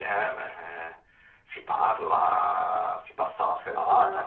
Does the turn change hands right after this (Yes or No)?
Yes